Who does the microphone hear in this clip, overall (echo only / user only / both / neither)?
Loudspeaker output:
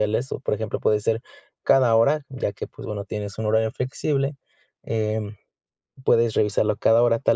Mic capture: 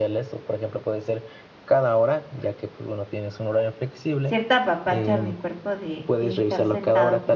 both